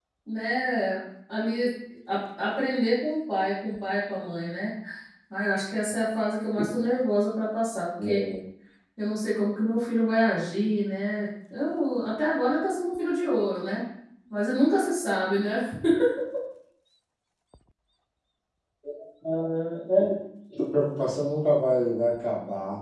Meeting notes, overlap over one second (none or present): none